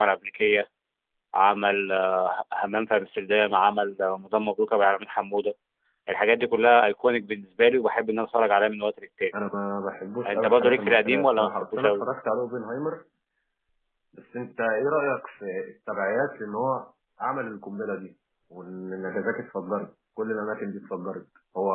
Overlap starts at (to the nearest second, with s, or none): 10 s